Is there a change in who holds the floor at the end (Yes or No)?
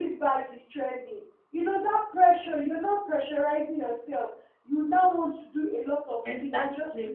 No